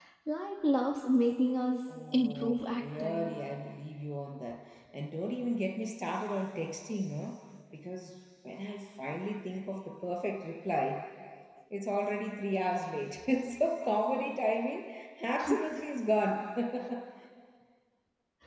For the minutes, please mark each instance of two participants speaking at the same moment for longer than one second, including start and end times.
1.9-3.3

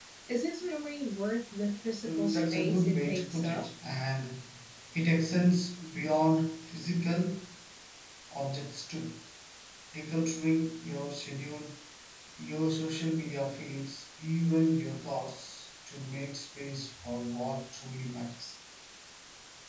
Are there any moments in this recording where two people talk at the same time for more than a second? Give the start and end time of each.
2.0-3.6

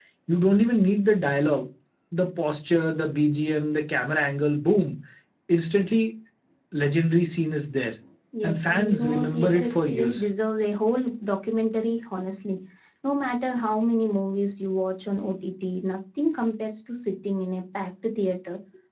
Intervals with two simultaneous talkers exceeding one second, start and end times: 8.4-10.3

